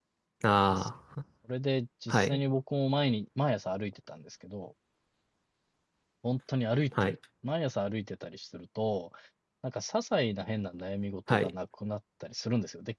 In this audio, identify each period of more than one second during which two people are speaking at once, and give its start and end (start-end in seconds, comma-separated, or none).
none